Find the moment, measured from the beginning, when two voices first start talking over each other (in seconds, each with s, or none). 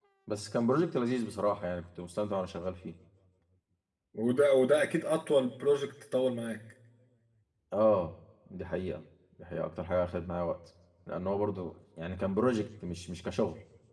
none